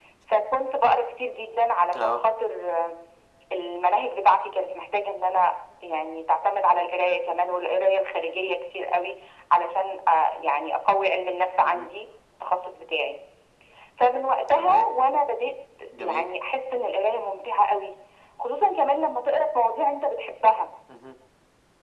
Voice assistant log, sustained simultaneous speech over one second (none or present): none